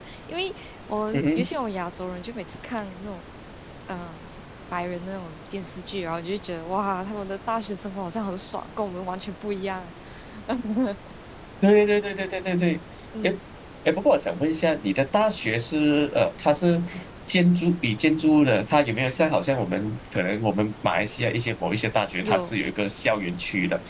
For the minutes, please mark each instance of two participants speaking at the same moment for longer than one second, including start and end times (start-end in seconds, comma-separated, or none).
none